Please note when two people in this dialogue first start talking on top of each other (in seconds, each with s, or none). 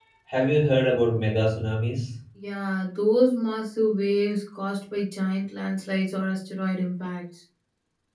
none